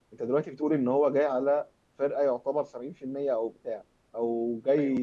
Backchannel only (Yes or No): Yes